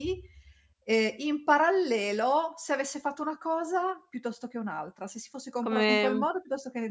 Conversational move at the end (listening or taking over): listening